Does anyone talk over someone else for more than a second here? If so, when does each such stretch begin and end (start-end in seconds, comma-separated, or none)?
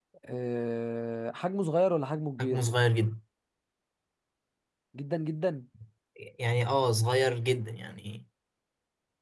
none